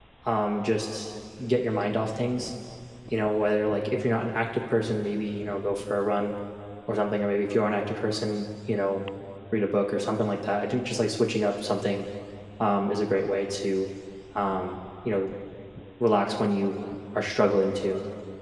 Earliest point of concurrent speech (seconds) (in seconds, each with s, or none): none